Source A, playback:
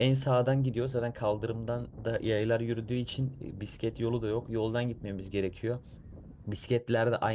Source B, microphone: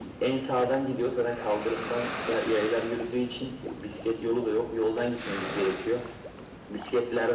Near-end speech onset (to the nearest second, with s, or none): none